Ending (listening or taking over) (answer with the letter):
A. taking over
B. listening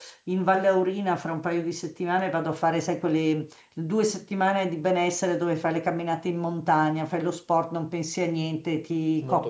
B